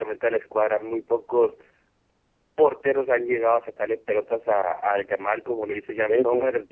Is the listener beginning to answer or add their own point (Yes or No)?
No